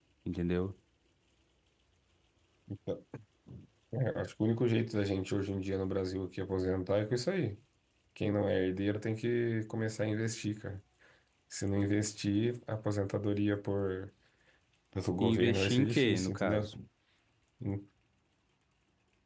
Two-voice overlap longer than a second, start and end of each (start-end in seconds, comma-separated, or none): 15.2-16.7